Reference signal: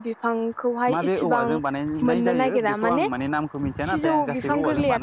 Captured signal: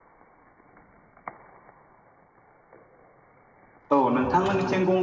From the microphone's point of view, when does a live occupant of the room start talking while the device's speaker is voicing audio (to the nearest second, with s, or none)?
4 s